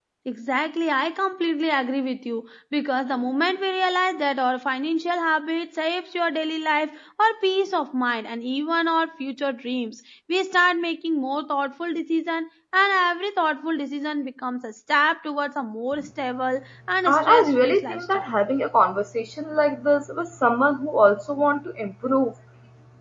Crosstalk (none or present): present